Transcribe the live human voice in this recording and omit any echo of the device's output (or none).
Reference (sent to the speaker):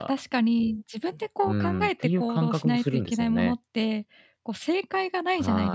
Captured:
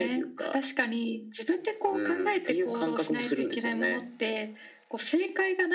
none